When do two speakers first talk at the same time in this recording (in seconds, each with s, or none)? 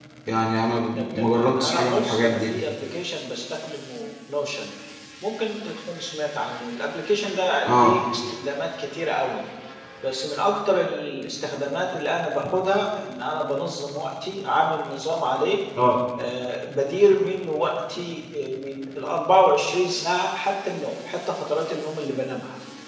1.0 s